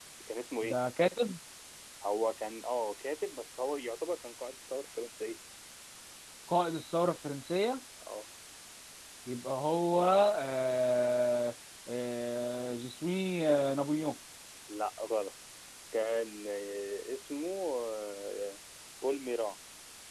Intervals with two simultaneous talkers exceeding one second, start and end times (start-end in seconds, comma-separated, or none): none